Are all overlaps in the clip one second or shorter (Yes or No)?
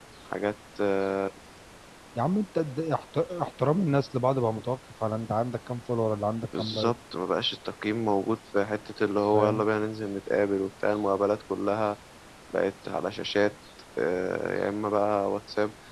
Yes